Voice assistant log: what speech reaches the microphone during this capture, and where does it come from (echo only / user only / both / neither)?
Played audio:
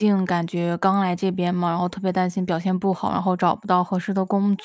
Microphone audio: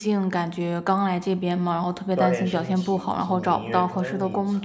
both